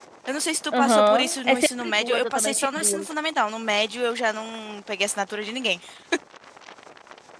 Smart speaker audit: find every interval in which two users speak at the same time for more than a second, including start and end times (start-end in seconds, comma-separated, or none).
0.7-3.1